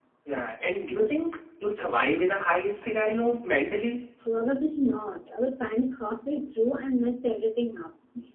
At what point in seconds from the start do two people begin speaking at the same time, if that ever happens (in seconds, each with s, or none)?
none